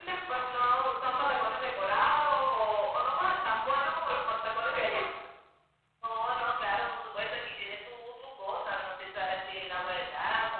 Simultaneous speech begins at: none

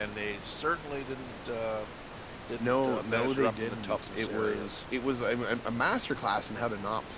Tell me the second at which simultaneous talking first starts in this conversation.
2.6 s

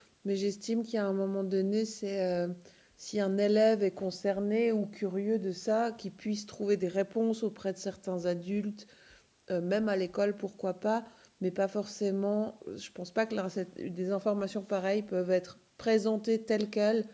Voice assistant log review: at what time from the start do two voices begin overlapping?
none

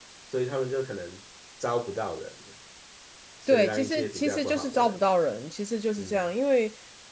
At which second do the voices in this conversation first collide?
3.5 s

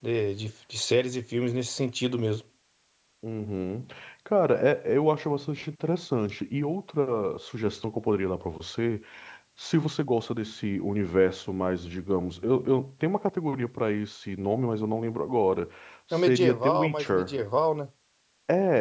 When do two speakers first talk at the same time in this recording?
16.1 s

